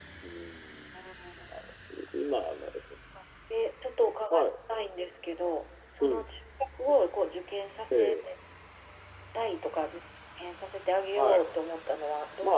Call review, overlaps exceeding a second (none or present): none